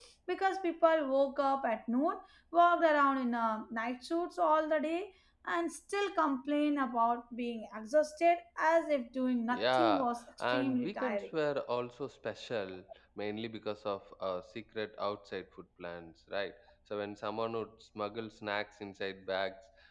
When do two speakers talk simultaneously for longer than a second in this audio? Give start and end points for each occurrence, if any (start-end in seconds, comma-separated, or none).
9.5-11.3